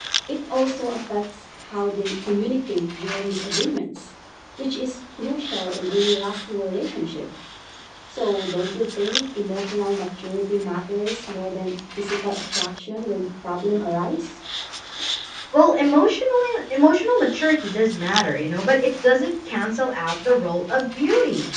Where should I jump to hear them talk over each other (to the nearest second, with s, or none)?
none